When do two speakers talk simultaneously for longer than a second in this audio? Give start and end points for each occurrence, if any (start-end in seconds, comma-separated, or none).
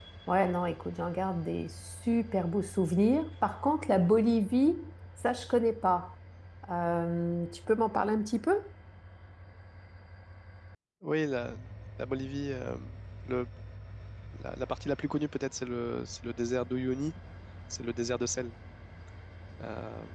none